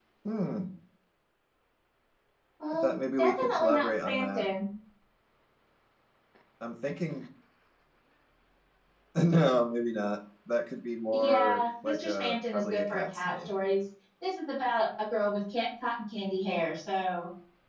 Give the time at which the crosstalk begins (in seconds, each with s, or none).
2.7 s